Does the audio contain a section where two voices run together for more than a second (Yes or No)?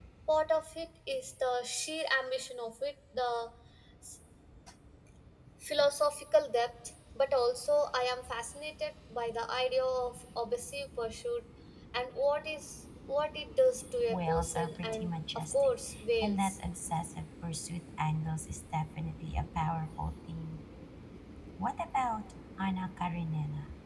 Yes